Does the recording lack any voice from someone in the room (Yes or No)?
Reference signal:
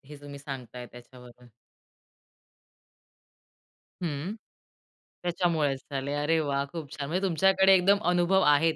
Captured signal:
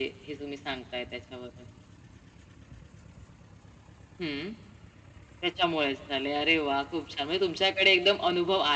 Yes